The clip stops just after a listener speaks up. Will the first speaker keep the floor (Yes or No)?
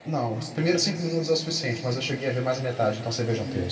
No